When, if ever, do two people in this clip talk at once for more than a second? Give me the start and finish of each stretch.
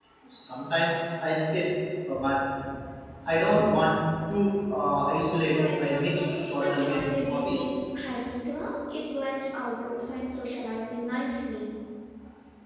5.5-7.7

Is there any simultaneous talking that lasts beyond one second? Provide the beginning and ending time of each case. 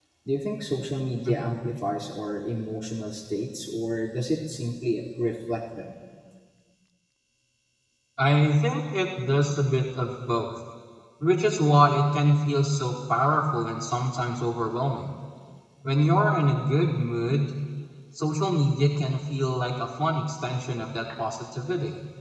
none

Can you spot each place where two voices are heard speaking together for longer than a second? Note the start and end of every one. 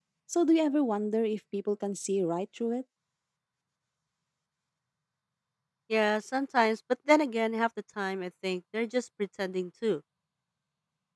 none

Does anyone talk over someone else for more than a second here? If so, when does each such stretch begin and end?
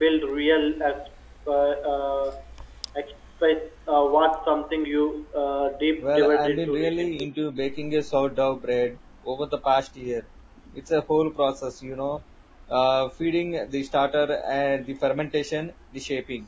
6.0-7.3

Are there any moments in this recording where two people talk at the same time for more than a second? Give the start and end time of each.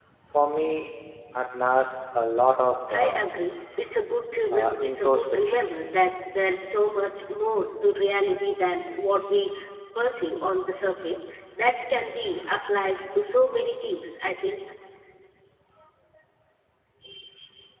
4.5-5.9

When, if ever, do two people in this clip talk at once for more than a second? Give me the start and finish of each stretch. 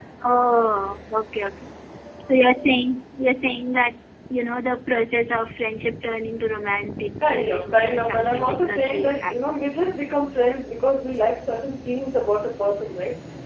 7.2-9.3

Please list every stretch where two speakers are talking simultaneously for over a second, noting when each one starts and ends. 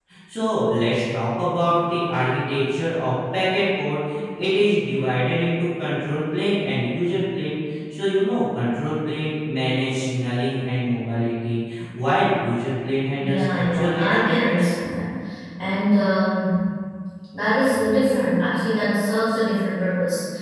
13.2-14.7

